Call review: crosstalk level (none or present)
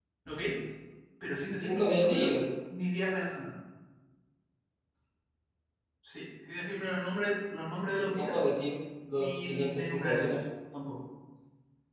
present